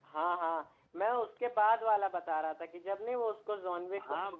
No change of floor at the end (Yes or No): No